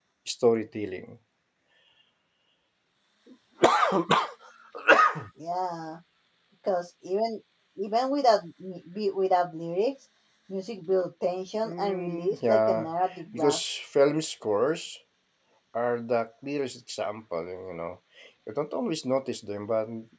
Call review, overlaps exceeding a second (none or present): present